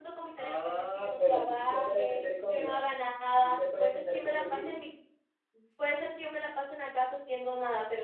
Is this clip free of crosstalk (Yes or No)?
No